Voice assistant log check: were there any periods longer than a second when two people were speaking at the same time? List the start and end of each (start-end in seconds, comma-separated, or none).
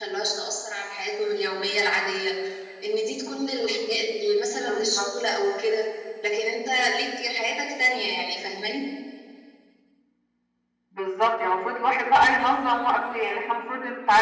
none